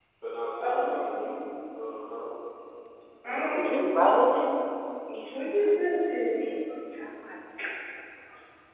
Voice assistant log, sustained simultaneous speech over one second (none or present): present